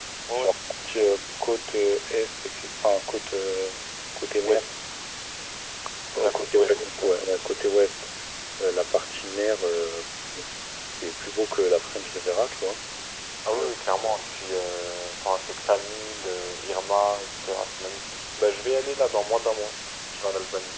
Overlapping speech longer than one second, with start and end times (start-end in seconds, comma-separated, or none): 6.2-7.4